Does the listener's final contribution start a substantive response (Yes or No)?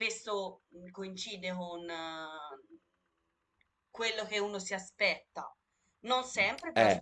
No